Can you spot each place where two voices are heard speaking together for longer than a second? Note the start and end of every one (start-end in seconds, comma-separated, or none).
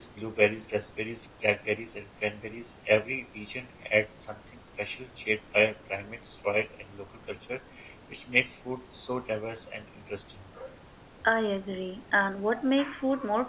none